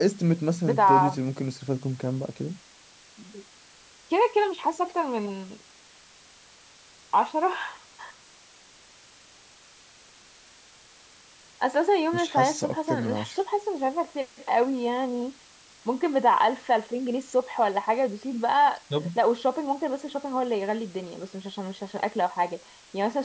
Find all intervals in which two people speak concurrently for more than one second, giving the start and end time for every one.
12.1-13.3

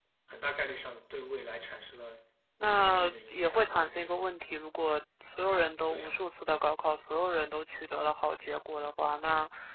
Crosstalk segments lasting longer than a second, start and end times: 2.6-4.2

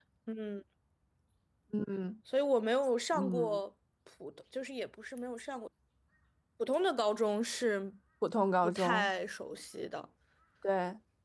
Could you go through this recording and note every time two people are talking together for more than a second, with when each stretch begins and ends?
none

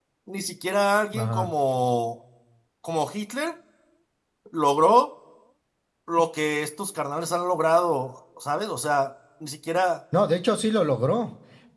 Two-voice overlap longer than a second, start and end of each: none

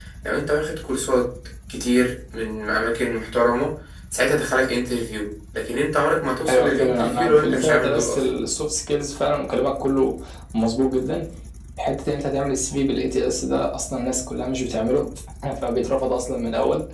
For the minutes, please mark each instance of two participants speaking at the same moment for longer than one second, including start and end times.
6.5-8.2

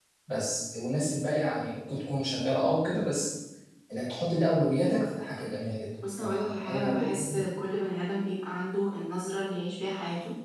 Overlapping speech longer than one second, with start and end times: 6.2-7.4

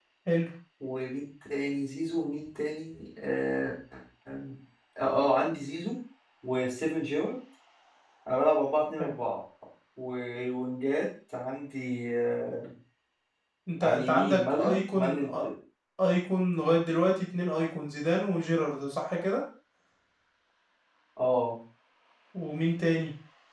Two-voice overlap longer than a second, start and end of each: 13.8-15.2

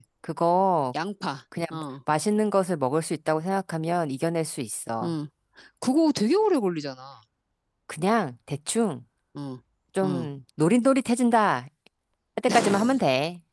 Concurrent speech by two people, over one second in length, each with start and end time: none

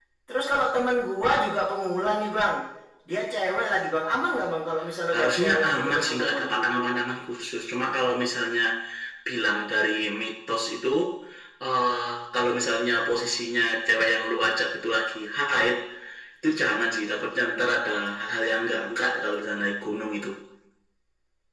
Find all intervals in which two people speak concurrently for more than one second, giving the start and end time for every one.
5.1-6.5

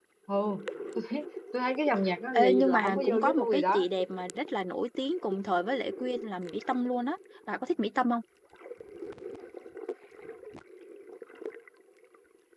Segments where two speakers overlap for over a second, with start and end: 2.3-3.8

